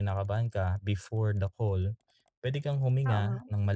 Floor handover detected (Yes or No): No